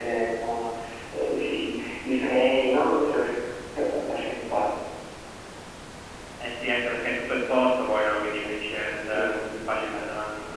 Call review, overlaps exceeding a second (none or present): none